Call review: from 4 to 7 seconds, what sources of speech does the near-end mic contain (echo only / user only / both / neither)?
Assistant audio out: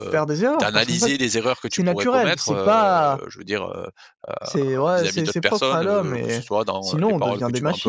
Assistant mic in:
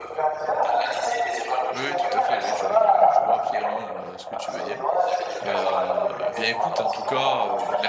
both